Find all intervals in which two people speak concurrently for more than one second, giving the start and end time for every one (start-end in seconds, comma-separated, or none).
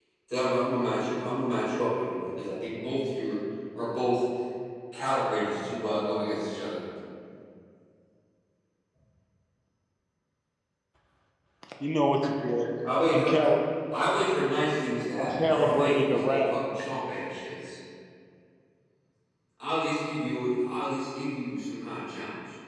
15.2-16.5